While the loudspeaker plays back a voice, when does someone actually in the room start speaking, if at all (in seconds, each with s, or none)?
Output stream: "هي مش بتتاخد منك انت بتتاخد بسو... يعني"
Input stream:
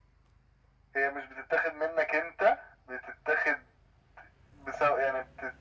none